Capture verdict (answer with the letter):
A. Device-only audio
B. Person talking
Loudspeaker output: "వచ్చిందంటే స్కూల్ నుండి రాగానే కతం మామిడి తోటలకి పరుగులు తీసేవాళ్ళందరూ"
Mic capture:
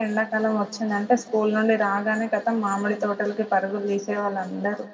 A